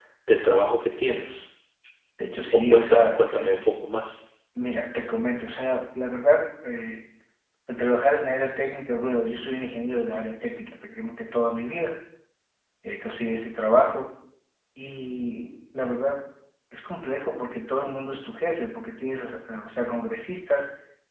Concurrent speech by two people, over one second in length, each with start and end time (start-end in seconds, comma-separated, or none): 2.5-3.9